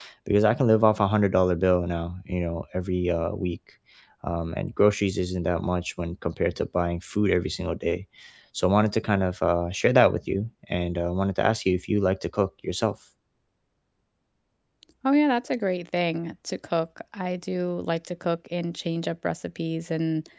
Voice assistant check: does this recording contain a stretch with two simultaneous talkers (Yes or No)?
No